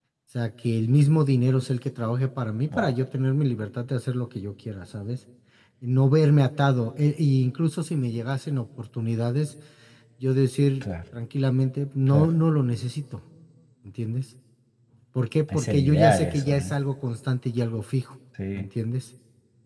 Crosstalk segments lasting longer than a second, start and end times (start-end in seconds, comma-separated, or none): 15.5-16.7